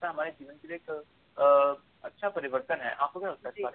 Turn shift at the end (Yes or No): Yes